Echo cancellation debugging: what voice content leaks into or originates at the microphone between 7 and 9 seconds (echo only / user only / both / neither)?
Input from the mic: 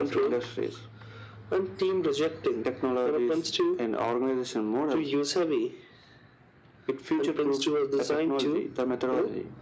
echo only